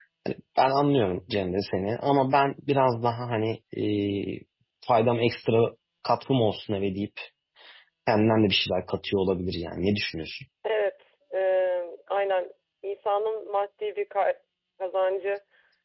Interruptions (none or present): none